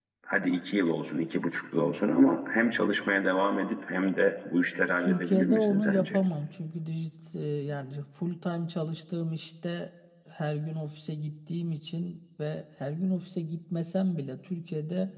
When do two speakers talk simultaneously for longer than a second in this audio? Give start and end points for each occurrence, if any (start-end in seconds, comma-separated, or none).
5.0-6.2